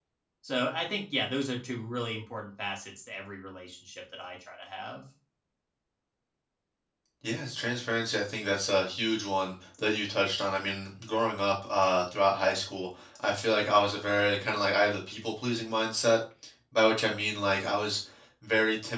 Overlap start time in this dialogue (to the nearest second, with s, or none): none